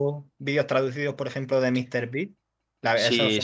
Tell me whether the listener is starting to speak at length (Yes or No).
Yes